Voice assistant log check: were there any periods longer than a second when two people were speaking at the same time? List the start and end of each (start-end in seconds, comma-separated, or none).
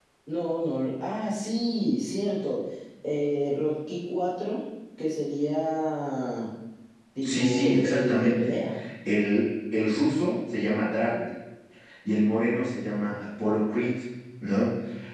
7.2-8.5